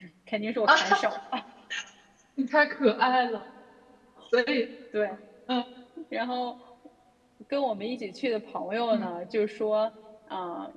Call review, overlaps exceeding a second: none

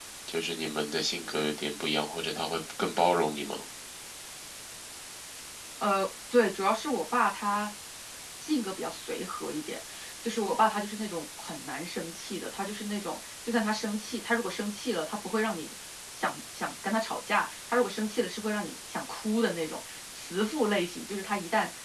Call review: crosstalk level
none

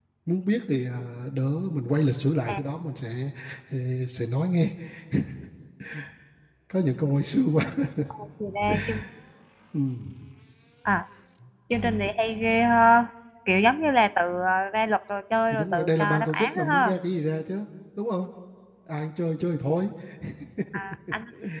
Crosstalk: present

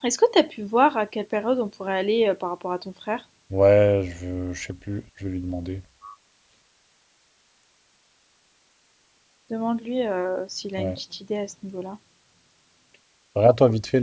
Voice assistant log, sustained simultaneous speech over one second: none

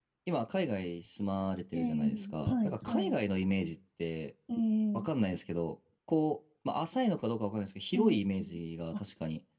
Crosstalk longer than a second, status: present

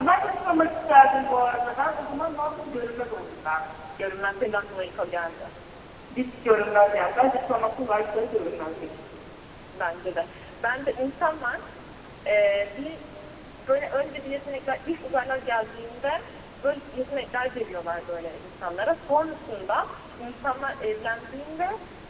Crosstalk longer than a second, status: none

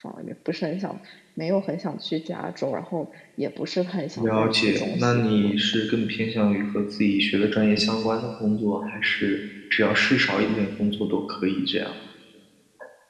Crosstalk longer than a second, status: present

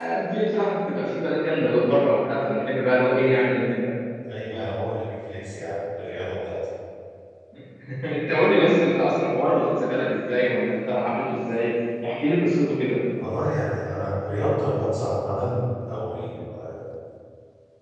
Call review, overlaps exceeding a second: none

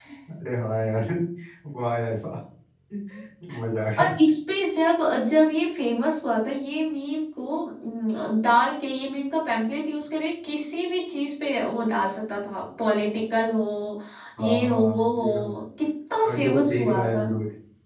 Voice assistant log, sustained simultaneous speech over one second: present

